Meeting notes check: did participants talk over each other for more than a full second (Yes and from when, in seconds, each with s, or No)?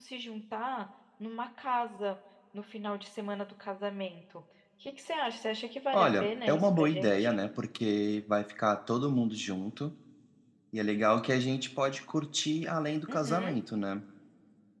Yes, from 5.9 s